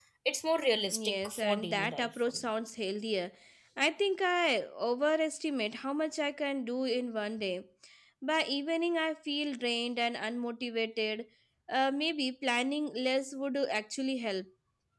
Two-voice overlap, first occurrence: 1 s

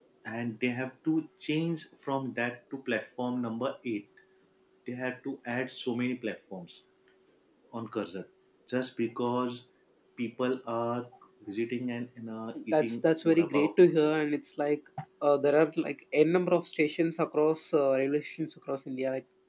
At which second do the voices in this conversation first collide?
13 s

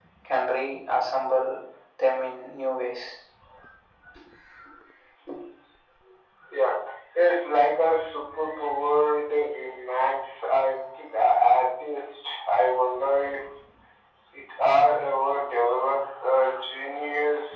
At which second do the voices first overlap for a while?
none

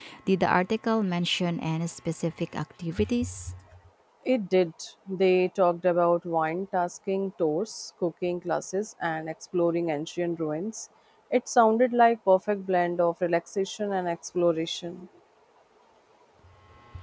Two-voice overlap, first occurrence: none

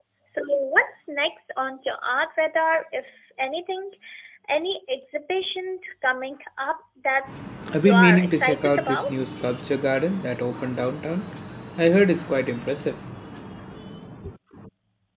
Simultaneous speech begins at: 8 s

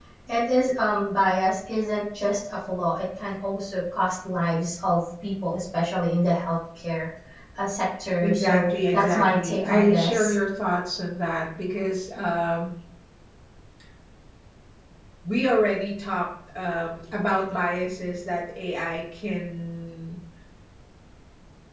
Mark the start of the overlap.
8 s

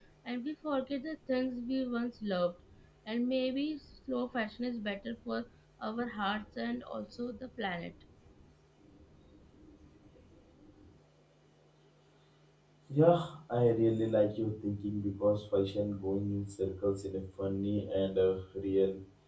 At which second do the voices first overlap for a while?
none

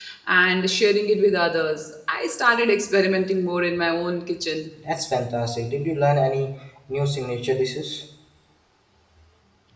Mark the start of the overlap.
none

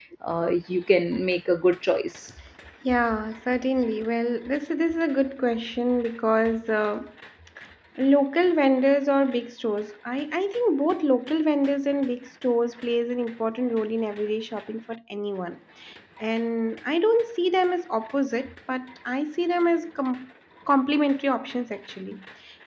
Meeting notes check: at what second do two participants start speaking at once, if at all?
none

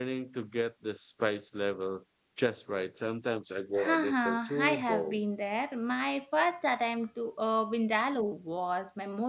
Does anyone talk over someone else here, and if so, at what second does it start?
4 s

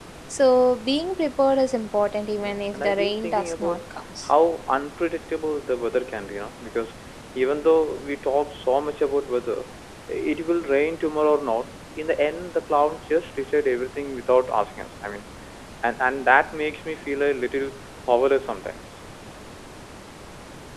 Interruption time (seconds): 2 s

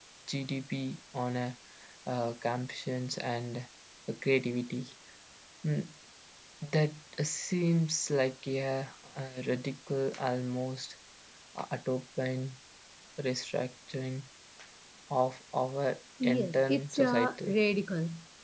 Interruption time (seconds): 16 s

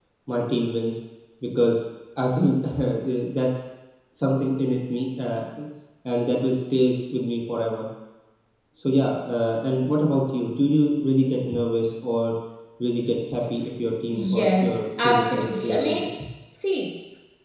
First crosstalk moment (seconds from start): 14 s

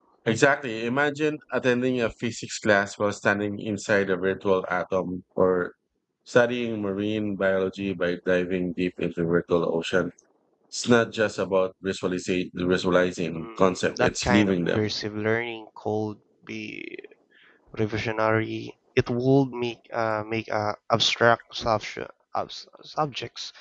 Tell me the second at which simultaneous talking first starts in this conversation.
13 s

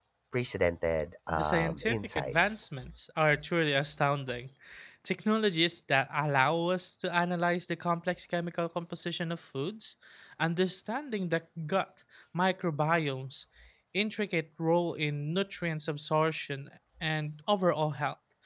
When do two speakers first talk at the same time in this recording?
1 s

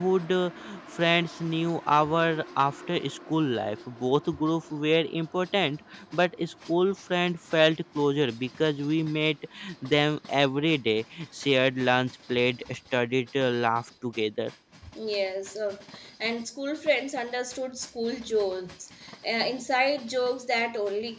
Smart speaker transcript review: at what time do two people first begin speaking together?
none

